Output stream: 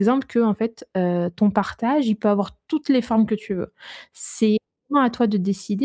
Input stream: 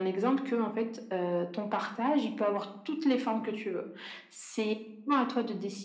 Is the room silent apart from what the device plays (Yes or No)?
Yes